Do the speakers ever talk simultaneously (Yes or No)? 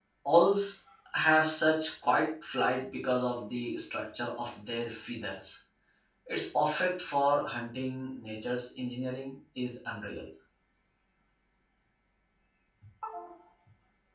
No